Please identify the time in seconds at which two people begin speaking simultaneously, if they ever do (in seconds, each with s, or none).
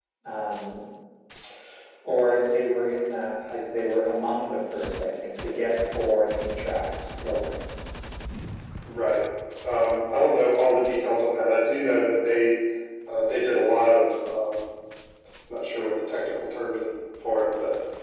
none